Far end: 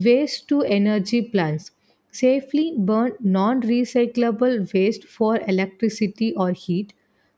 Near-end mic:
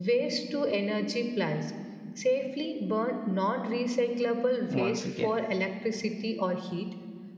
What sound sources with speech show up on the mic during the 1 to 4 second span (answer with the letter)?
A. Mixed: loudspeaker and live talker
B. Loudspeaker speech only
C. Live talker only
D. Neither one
B